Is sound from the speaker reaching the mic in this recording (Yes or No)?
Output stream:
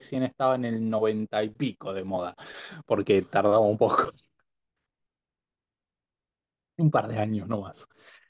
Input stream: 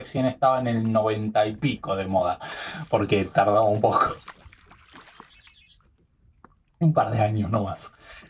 Yes